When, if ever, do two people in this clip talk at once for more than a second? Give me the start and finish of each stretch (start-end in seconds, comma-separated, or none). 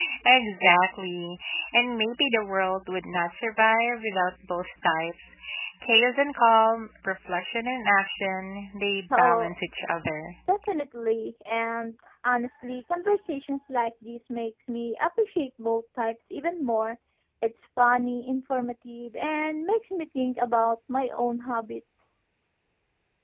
none